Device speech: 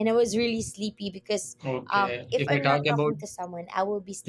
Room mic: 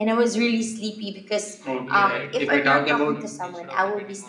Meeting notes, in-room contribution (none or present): present